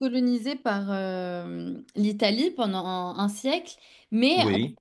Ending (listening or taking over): listening